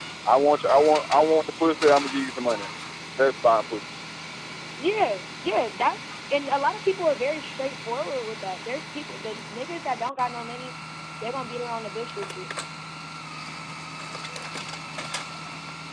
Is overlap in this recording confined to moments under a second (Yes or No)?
Yes